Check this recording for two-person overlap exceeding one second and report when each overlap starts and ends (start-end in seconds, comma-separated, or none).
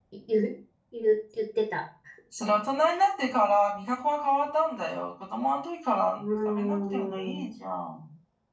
6.1-7.5